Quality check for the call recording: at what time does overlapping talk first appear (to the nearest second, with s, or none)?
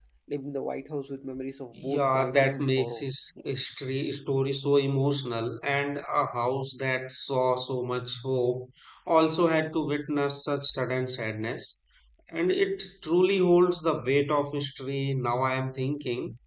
2 s